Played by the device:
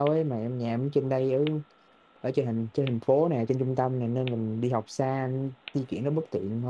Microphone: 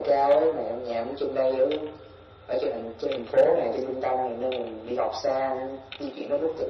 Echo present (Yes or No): Yes